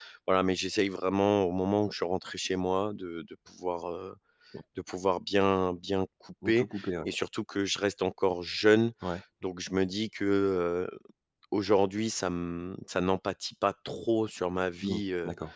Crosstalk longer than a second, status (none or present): none